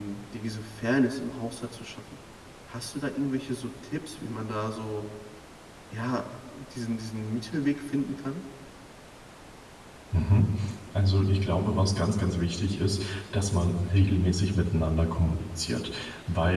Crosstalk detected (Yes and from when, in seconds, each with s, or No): No